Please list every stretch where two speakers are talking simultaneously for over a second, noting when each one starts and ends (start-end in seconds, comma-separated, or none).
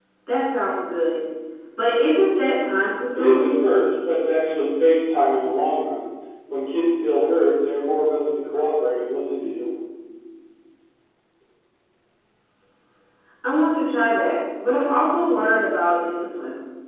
none